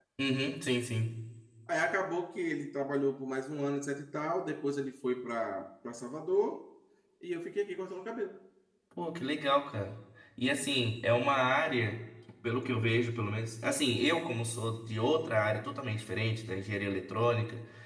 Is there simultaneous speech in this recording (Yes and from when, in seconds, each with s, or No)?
No